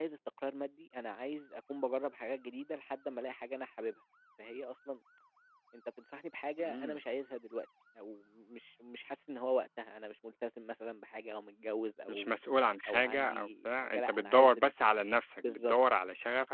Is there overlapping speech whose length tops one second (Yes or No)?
Yes